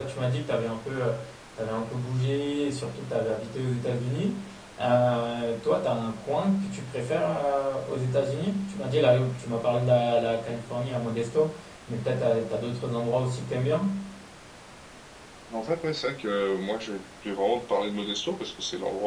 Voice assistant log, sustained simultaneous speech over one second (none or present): none